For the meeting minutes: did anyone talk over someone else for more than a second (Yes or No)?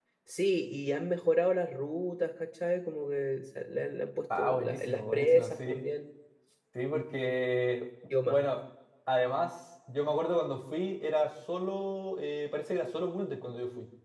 Yes